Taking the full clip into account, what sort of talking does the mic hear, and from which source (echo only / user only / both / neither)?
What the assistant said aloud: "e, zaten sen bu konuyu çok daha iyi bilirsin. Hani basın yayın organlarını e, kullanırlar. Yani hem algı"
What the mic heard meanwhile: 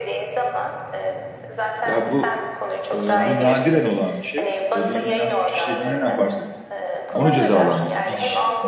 both